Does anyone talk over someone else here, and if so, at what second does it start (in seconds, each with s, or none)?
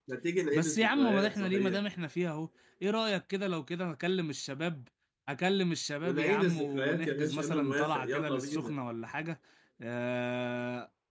0.5 s